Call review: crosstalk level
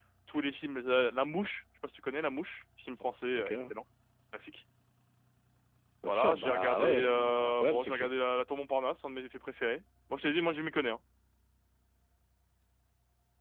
present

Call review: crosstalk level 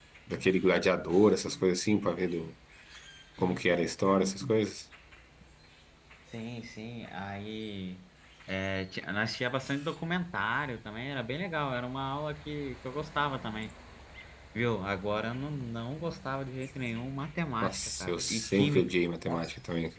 present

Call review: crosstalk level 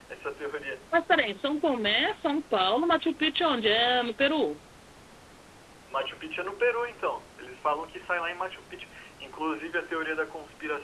none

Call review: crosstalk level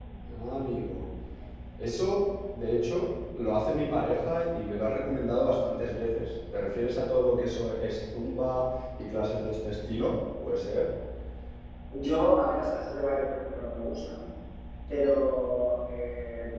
none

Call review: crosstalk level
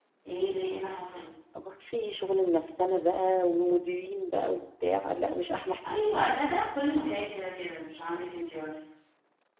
none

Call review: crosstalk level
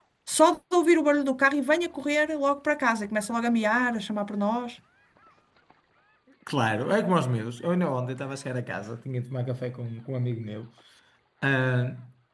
none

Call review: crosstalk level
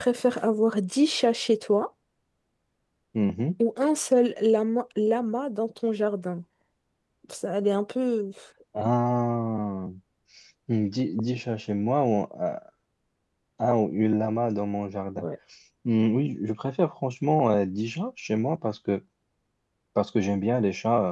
none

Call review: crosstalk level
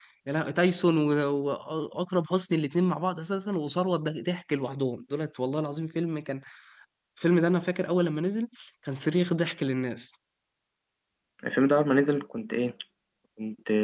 none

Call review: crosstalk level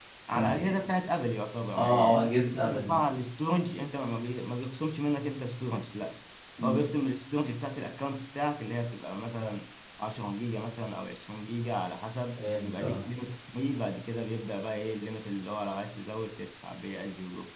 present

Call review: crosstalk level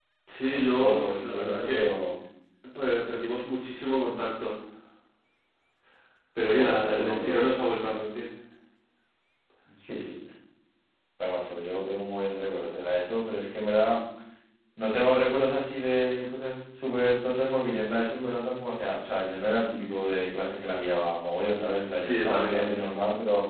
present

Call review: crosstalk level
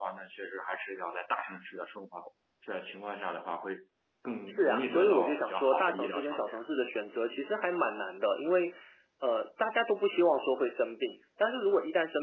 present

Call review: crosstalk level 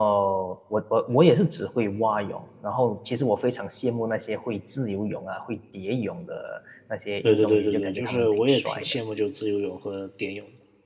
present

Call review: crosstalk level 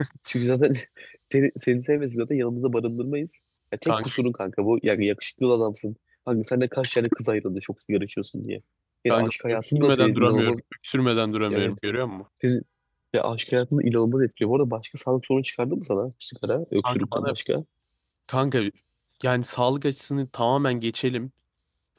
present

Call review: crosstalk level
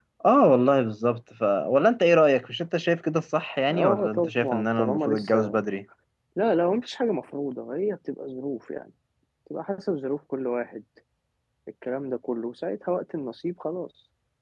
present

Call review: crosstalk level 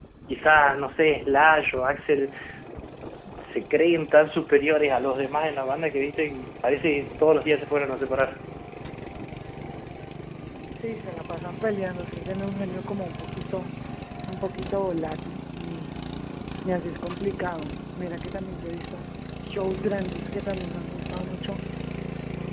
none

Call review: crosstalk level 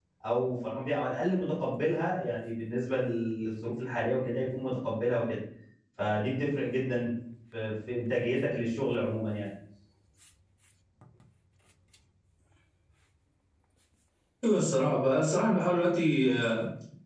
none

